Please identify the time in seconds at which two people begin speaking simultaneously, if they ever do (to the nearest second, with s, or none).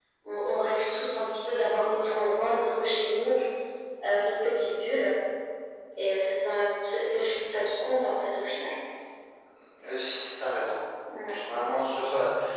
none